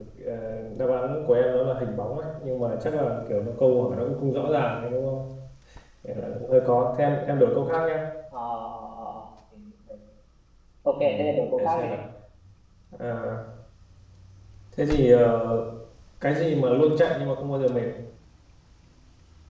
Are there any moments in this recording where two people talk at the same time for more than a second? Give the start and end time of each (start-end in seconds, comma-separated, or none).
none